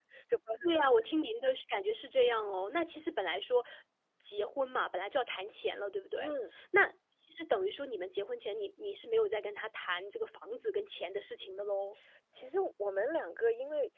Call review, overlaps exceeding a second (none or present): none